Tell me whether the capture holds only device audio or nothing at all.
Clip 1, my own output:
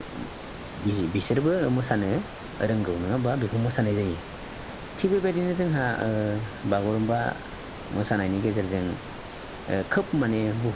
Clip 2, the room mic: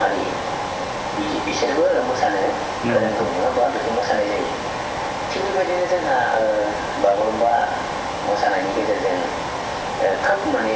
No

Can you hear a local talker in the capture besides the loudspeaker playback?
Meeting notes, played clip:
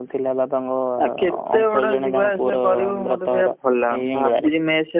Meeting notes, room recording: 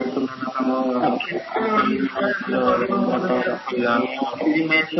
No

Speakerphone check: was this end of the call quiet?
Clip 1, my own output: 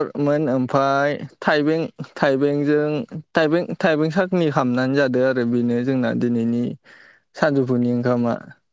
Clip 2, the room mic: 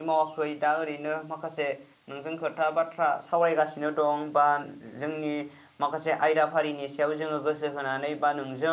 No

